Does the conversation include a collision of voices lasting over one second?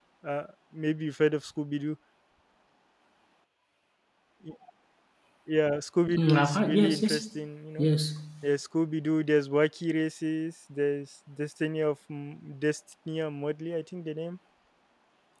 Yes, from 6.2 s

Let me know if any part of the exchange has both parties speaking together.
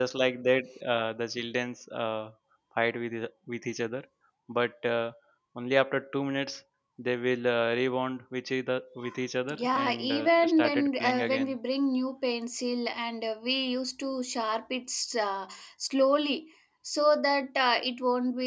Yes, from 9.6 s

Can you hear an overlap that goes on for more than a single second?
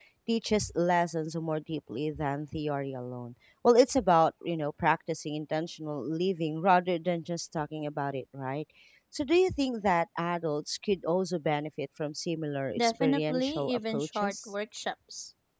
Yes, from 12.8 s

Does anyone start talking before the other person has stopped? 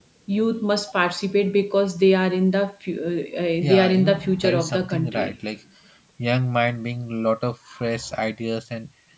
Yes, from 3.6 s

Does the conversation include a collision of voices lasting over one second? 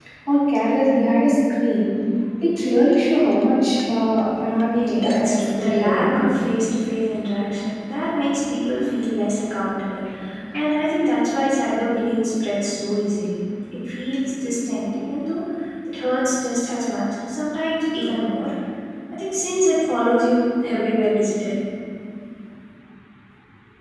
Yes, from 4.7 s

